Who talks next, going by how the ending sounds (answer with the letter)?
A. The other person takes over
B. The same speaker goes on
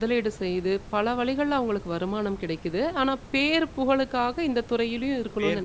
A